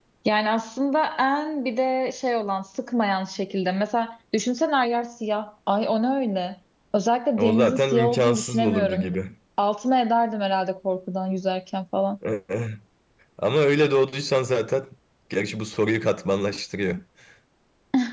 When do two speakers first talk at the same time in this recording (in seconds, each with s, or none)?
7.4 s